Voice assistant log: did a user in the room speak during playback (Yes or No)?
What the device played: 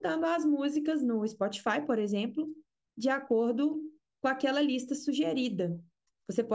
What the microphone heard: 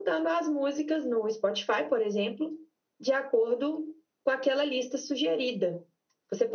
No